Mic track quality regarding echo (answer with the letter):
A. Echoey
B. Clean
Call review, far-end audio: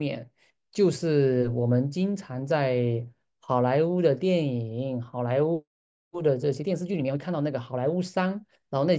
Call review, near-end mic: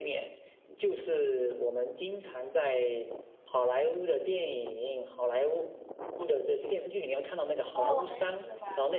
A